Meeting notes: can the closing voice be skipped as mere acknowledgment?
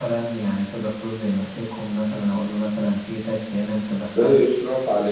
No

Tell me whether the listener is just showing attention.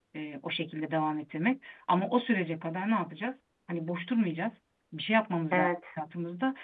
Yes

